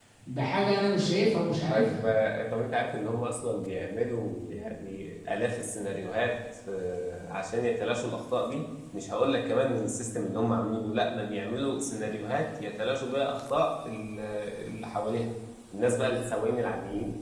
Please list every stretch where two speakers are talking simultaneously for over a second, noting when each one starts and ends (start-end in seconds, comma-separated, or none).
none